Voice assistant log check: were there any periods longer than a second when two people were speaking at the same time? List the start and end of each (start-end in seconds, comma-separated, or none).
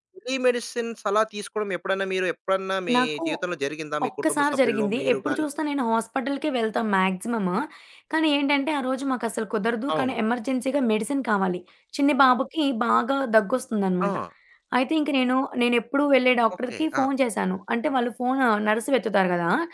4.1-5.4